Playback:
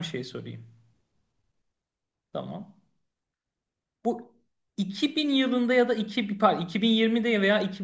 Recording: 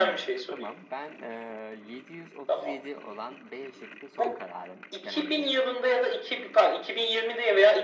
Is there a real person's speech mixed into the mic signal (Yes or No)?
Yes